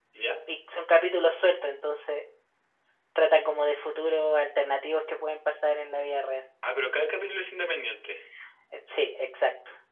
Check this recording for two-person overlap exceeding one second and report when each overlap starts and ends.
none

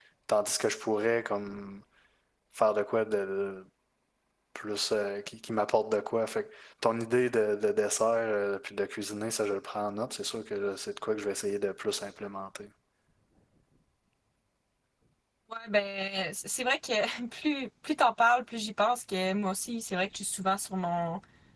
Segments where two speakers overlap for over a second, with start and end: none

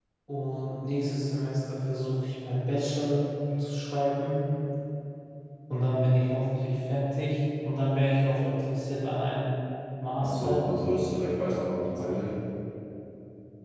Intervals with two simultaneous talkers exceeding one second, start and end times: none

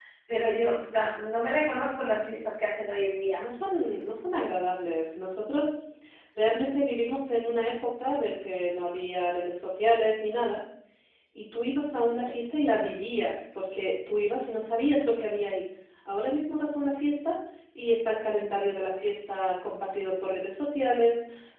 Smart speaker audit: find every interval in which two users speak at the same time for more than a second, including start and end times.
none

